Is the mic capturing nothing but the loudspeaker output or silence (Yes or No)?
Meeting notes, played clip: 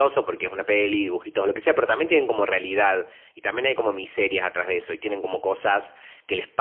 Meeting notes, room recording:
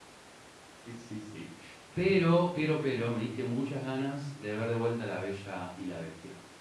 No